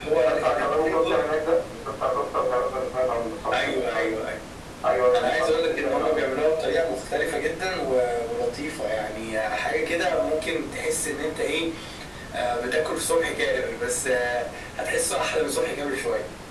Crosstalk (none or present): present